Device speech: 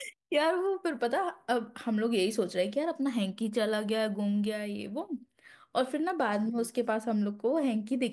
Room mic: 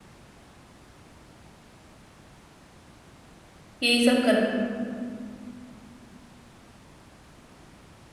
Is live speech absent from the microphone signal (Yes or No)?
No